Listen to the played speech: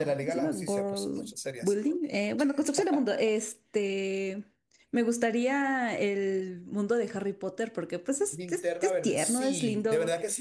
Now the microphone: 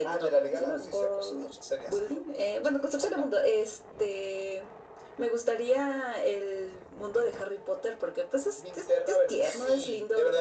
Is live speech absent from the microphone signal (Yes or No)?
Yes